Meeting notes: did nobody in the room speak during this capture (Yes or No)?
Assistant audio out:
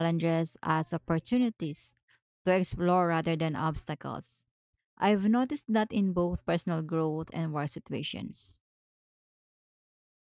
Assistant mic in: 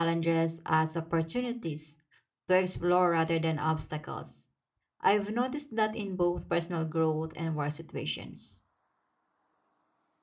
Yes